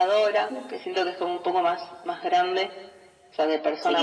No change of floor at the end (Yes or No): No